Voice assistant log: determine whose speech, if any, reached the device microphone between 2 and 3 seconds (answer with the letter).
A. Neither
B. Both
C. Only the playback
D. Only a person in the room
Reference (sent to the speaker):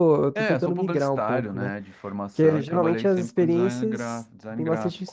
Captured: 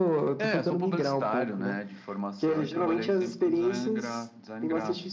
C